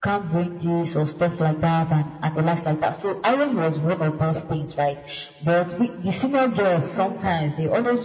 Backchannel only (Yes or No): Yes